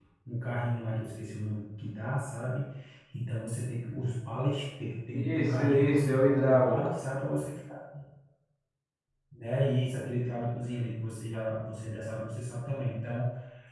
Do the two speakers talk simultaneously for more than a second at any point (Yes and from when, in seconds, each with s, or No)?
Yes, from 5.1 s